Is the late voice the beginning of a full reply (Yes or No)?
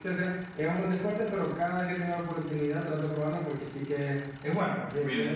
Yes